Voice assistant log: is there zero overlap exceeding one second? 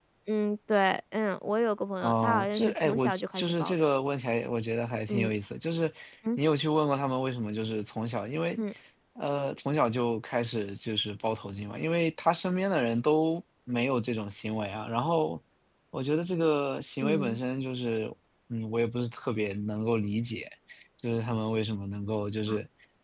No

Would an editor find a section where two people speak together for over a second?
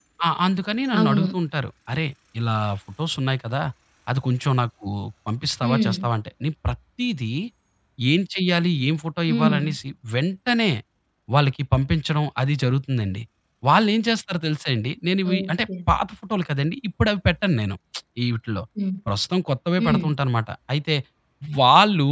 No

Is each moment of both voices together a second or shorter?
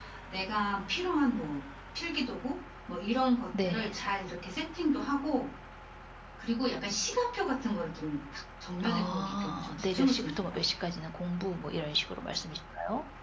No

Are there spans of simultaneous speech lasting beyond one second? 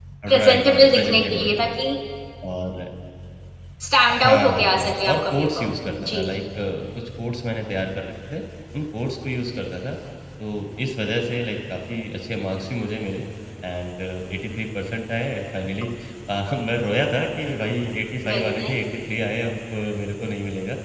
Yes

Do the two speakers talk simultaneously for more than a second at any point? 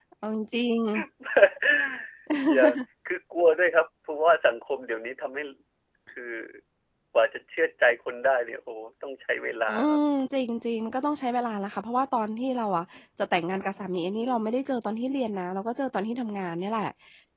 No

